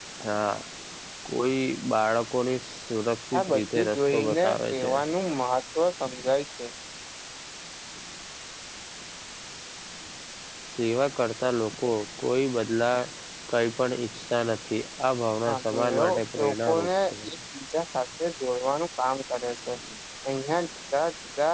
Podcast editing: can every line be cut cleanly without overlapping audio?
No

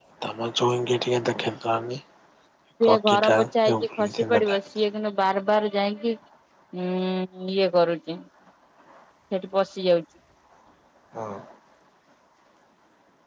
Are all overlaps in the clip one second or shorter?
No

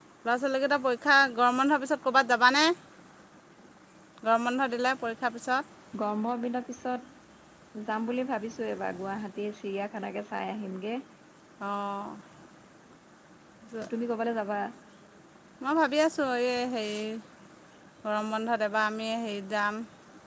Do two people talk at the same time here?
No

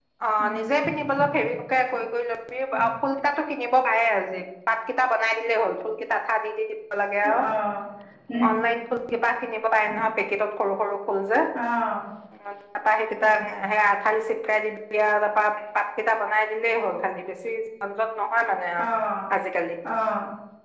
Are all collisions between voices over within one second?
Yes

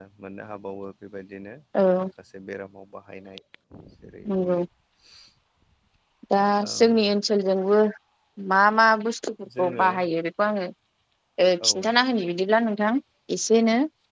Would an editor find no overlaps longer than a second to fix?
Yes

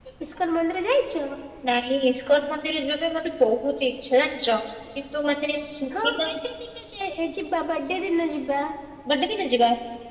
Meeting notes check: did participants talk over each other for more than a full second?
No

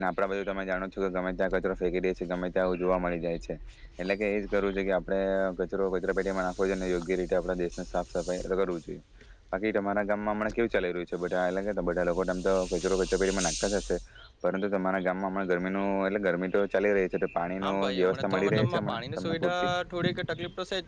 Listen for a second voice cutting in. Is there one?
Yes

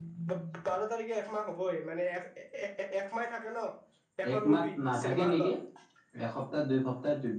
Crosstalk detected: Yes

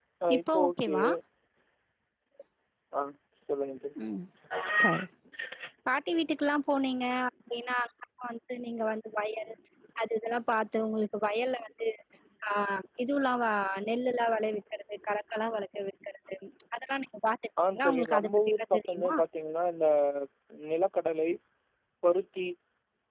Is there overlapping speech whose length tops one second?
Yes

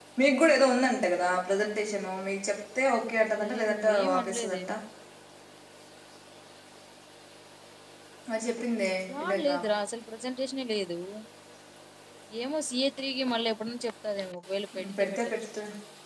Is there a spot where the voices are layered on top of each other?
Yes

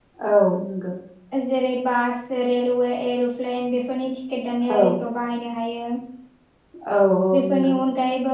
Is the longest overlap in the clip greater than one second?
No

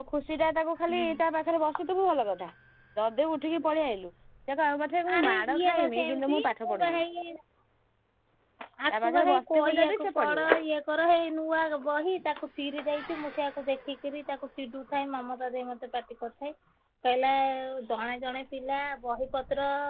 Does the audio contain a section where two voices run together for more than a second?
Yes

